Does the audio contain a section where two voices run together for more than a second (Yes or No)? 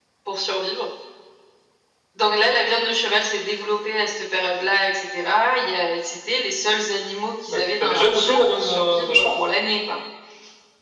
Yes